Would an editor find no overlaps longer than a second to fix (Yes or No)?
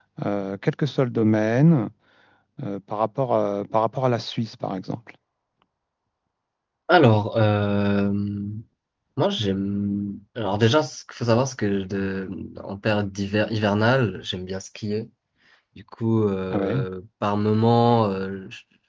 Yes